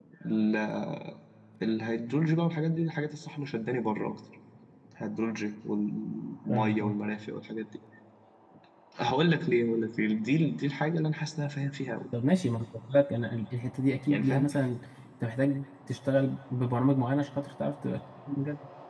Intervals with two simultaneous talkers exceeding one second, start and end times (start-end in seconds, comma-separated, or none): none